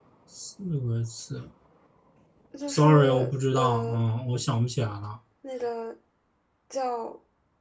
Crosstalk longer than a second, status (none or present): present